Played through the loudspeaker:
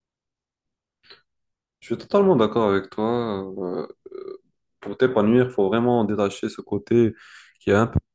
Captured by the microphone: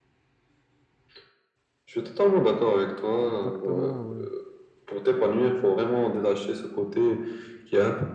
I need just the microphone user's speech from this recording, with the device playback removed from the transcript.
Exactement, ouais.

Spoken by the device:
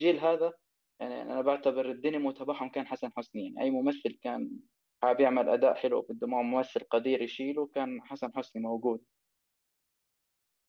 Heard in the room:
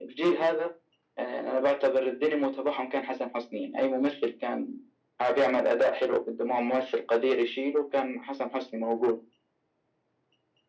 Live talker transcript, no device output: none

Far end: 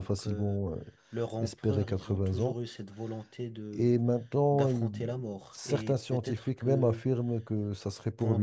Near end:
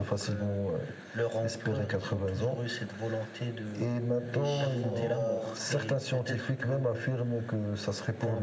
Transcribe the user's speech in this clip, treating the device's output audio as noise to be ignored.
les Chinois, on va,

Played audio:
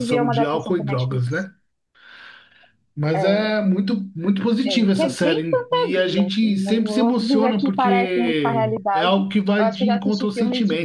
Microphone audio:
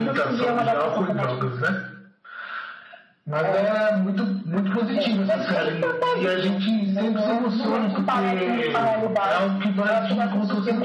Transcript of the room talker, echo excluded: none

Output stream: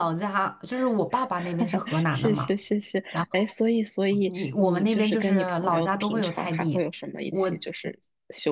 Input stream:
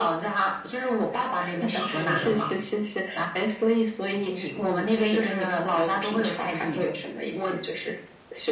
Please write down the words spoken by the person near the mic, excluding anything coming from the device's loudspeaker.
不是。

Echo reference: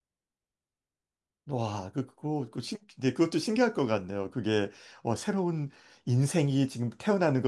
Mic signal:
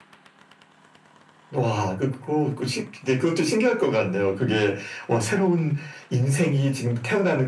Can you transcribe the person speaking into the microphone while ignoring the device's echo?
none

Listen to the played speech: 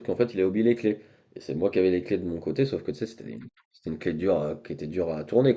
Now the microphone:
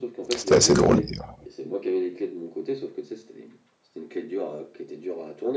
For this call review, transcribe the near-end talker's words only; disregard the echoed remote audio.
c'était assez drôle d'ailleurs.

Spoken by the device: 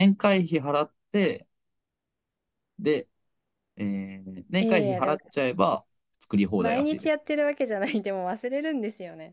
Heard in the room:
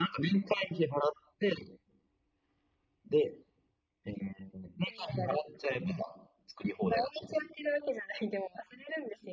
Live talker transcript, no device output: none

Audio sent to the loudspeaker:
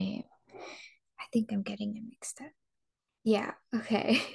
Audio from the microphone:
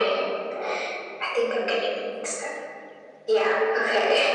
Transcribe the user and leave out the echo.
none

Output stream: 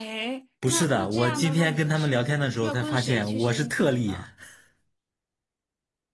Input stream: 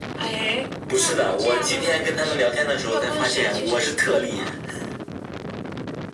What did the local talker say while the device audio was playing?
none

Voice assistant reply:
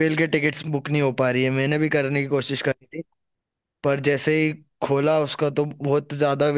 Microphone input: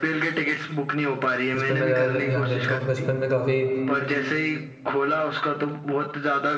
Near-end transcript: जिसमें मैं ज़्यादा दे, ध्यान देता हूँ बचपन में काफ़ी

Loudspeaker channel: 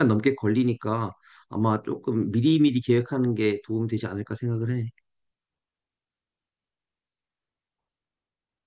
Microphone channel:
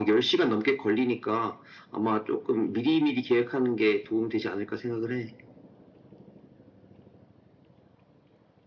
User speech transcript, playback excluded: none

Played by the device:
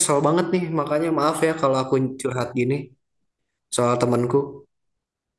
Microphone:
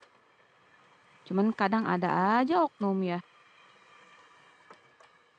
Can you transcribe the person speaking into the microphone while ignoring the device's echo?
Cuman kadang ada aja oknum ya.

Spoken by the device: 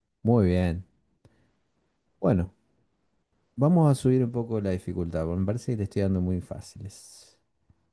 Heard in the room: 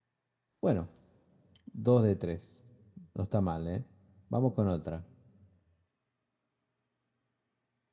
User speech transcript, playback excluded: Bueno, 2 de tres, No está mal, ¿eh? Vamos con otra.

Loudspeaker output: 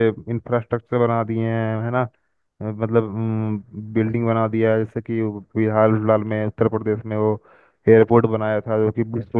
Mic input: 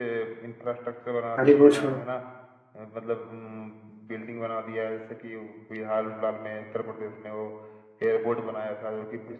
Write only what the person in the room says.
अरे वो छोड़ो

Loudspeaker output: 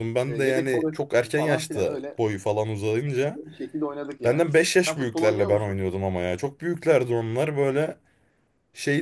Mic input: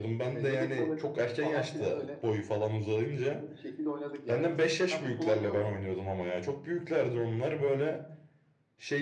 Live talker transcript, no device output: none

